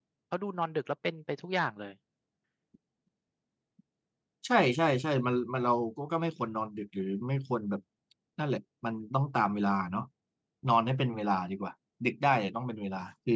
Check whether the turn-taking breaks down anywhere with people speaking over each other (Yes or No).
No